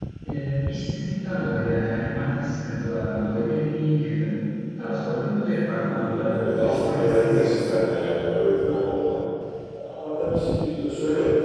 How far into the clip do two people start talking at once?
5.7 s

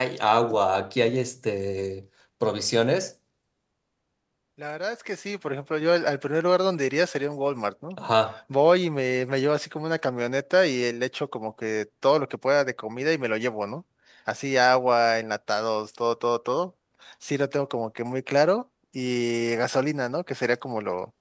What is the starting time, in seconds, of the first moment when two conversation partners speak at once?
none

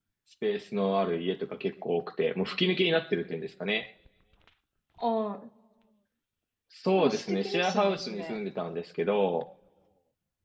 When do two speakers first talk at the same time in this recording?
7.0 s

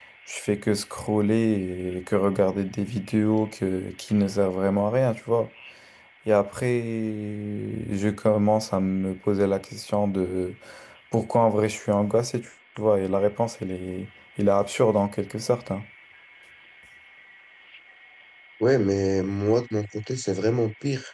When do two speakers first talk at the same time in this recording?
none

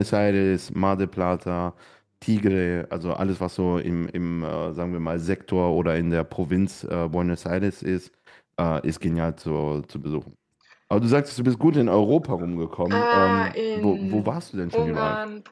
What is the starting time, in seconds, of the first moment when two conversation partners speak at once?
12.9 s

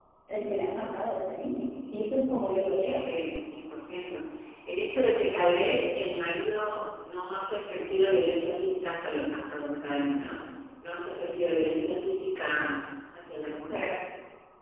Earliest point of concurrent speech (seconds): 1.7 s

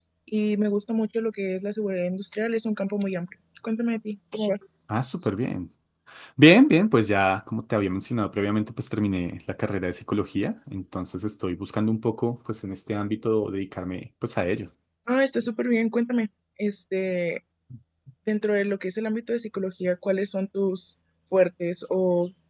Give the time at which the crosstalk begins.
none

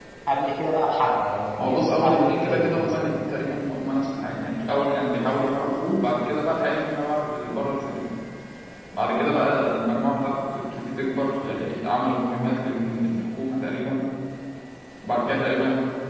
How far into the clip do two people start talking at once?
1.6 s

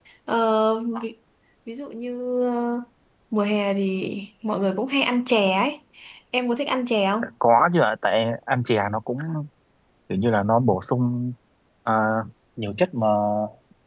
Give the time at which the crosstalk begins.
none

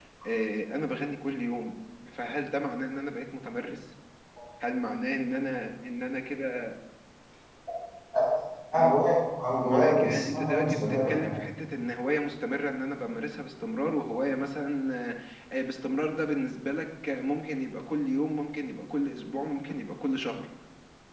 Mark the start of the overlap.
9.6 s

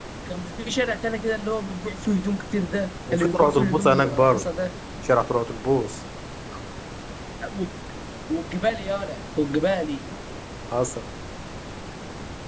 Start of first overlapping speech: 3.1 s

